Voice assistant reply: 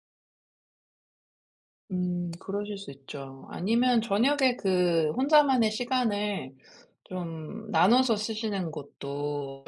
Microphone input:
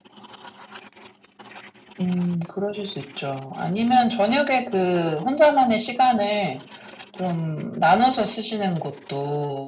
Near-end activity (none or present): none